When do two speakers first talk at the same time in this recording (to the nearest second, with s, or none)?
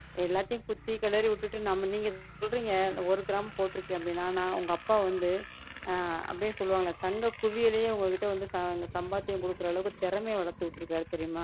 none